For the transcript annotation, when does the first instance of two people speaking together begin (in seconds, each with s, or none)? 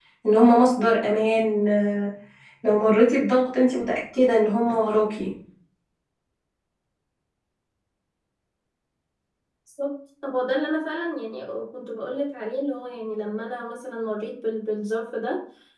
none